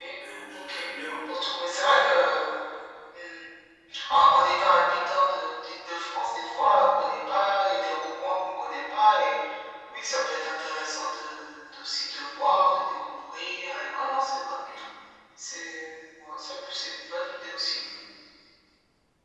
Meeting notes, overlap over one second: none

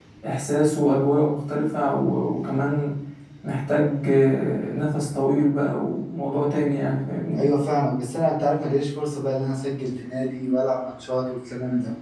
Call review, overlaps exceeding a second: none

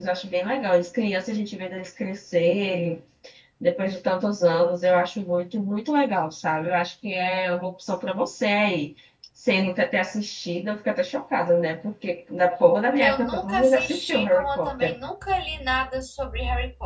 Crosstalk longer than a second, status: present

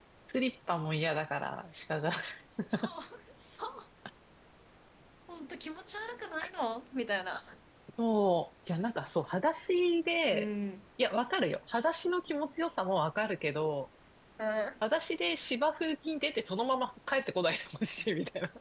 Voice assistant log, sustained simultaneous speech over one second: none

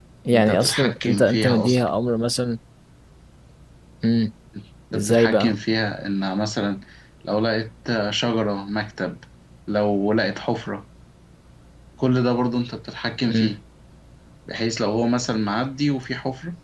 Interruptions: present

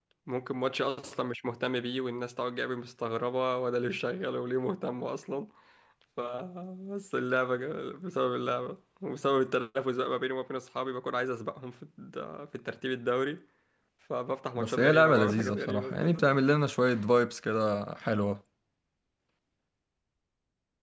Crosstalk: present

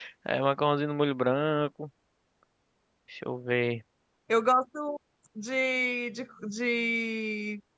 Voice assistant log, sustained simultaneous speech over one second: none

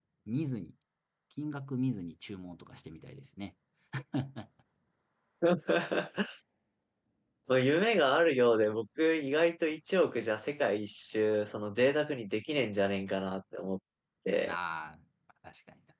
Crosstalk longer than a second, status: none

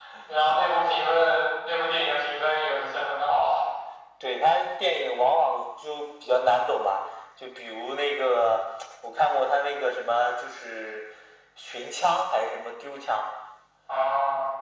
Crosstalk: none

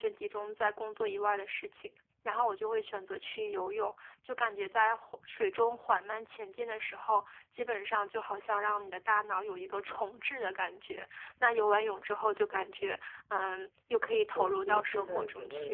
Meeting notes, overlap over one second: present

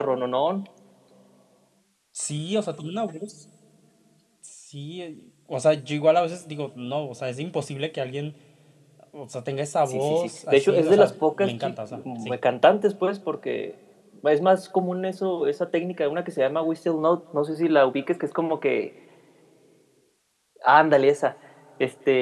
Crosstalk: present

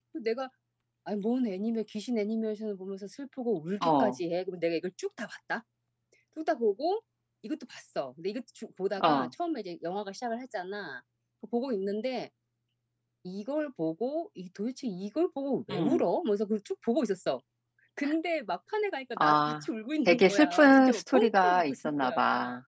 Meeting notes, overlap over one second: present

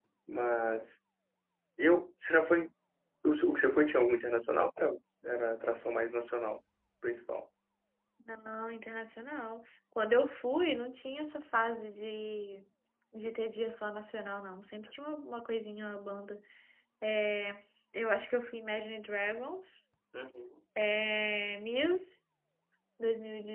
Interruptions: none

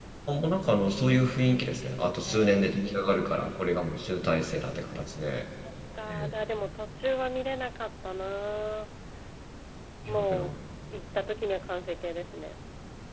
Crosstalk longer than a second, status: present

